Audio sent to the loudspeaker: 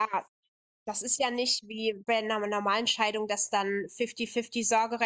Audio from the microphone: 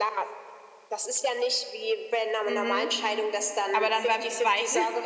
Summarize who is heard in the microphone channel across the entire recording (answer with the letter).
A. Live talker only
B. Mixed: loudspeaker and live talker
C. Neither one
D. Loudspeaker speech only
B